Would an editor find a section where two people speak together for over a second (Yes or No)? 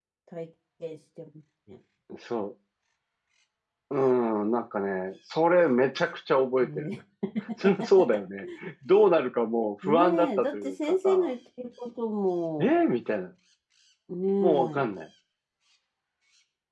Yes